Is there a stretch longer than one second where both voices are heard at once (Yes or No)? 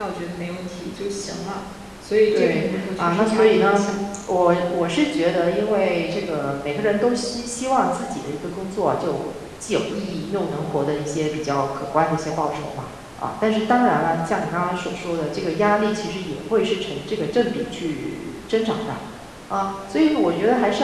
Yes